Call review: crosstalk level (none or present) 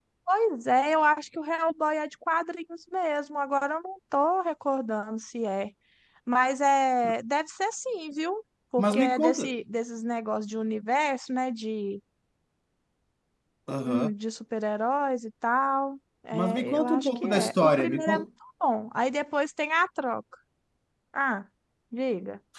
present